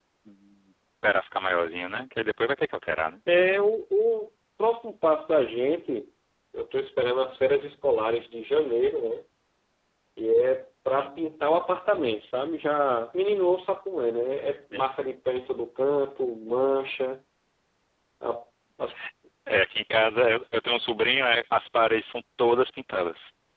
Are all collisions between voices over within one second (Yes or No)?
Yes